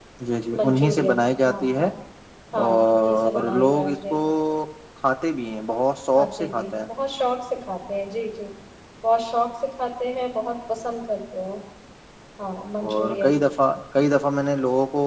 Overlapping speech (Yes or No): Yes